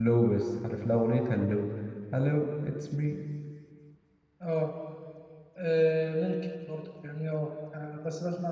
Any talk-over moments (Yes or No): No